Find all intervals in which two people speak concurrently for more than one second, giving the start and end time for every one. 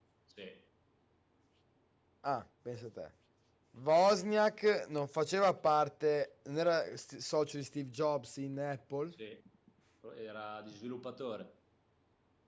none

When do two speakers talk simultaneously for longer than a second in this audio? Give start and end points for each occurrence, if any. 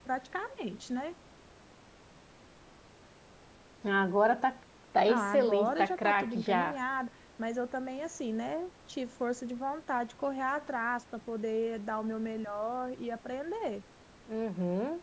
5.1-6.8

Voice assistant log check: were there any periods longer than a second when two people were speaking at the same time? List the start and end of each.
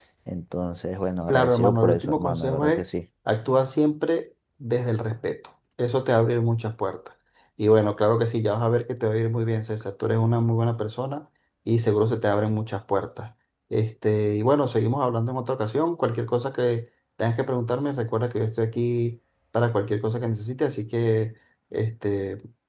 1.3-2.9

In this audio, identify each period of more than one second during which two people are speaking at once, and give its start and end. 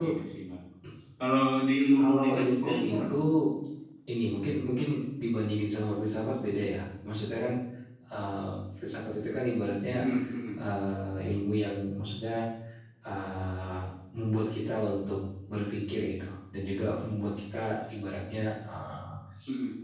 2.0-3.2

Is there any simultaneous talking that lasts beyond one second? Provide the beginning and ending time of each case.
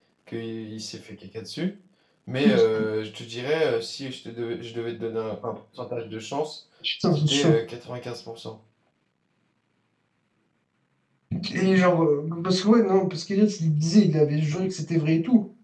none

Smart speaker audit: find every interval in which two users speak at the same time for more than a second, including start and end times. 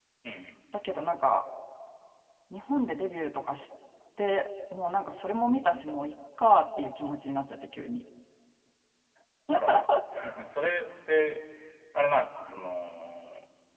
none

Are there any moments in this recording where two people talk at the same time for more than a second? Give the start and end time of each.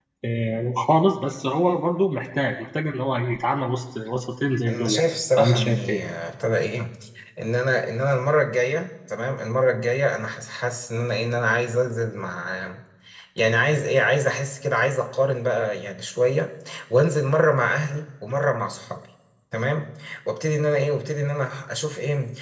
4.7-6.0

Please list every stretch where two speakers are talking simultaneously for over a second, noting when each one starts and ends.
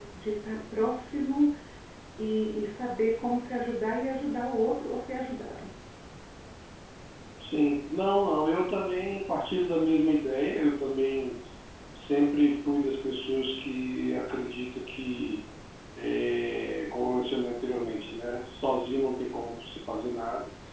none

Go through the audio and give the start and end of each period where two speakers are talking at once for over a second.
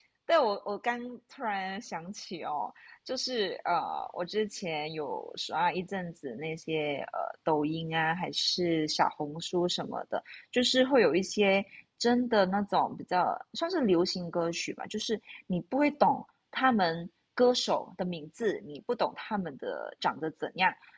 none

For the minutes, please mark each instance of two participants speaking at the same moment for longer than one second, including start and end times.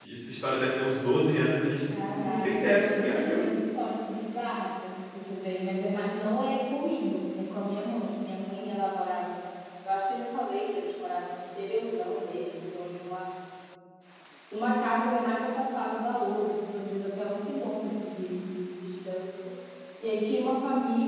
1.9-3.4

